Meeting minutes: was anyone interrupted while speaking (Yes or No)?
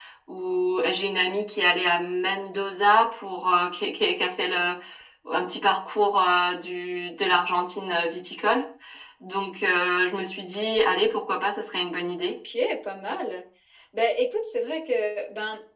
No